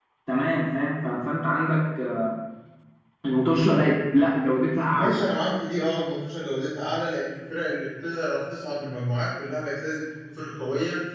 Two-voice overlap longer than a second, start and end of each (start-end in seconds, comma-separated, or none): none